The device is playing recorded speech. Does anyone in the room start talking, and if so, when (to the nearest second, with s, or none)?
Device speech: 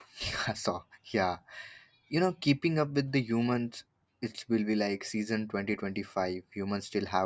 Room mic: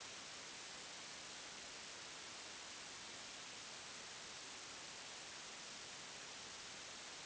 none